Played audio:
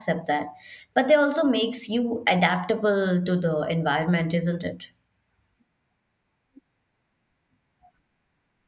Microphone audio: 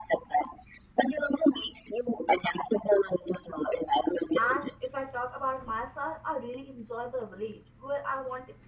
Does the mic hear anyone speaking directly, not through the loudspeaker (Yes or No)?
Yes